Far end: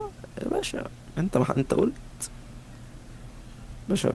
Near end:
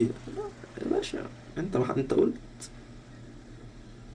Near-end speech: none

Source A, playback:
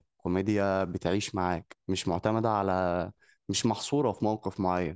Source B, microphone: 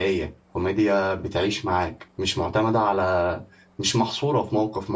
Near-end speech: none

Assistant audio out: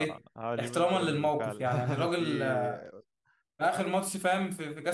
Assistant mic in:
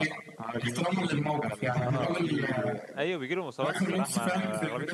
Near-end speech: present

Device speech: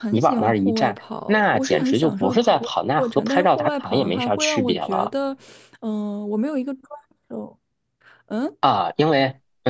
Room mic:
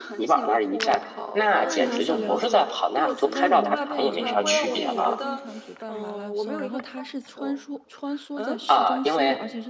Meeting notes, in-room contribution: present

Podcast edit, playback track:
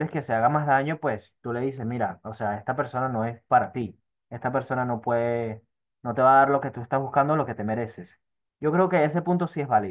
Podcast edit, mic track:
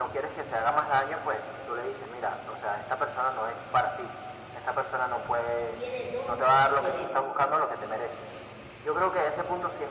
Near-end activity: present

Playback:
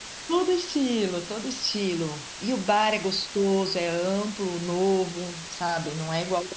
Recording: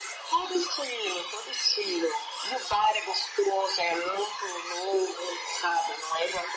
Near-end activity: none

